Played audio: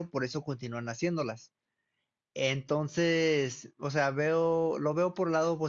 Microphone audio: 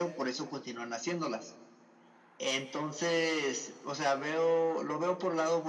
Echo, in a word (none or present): present